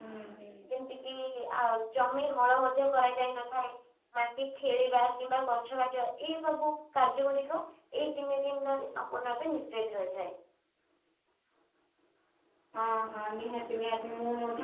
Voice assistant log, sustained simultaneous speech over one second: none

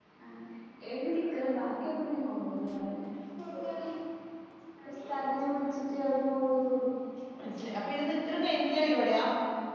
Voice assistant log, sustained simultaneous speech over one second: none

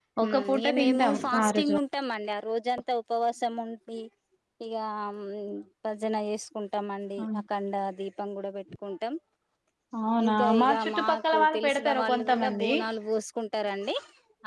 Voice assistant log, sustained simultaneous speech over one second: present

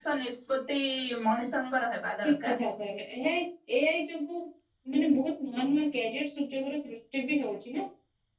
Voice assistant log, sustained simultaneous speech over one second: none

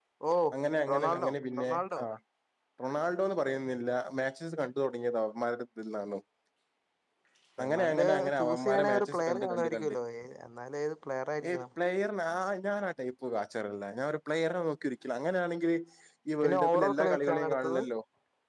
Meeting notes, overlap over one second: present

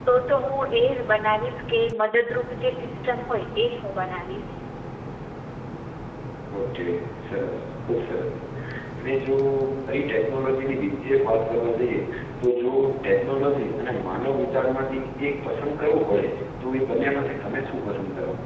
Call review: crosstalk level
none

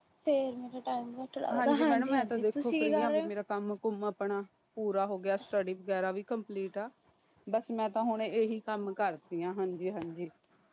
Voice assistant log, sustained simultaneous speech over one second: present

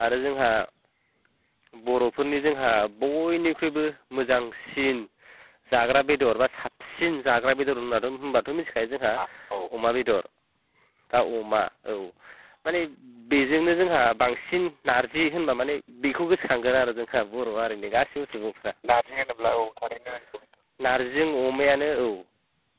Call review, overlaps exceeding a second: none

